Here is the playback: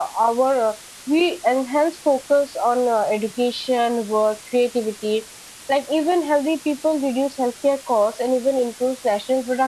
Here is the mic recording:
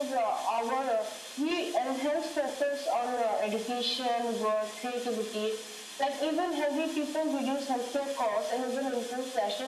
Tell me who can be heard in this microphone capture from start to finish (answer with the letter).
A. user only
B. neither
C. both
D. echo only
D